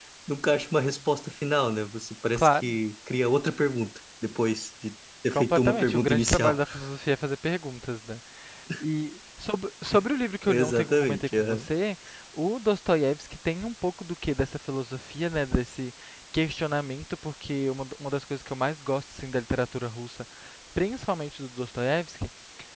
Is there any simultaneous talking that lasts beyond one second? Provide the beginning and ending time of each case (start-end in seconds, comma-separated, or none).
5.3-6.6, 10.5-11.7